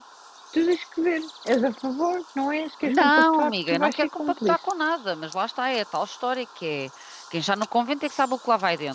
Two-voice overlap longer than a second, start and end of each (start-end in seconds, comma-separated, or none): 2.9-4.6